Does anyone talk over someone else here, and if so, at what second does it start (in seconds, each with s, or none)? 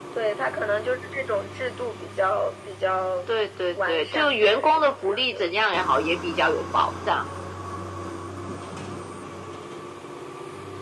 3.7 s